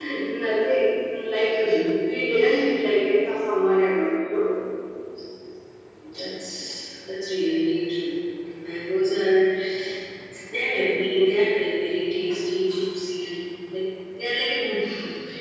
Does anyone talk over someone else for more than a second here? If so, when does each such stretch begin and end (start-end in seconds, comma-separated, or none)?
none